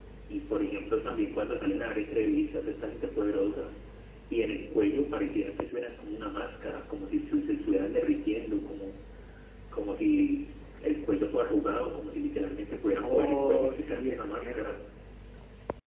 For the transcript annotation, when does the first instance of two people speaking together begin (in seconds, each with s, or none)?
13.0 s